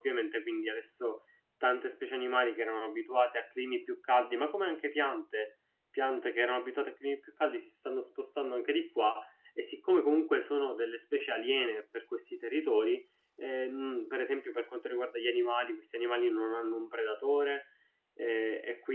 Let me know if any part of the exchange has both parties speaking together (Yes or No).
No